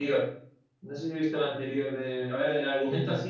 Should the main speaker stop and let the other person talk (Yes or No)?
No